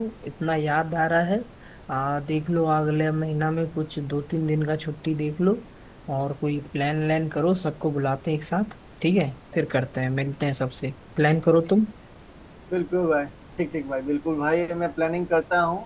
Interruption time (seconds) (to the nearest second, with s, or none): none